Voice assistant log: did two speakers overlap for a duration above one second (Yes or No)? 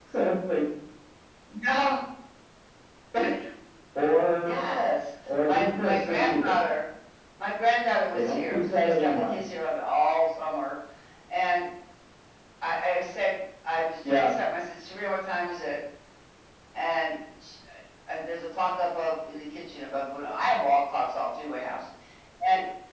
Yes